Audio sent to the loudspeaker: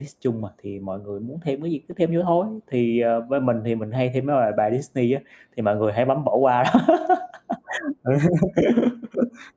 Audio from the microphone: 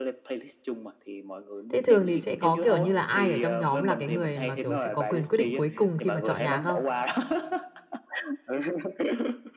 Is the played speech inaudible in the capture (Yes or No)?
No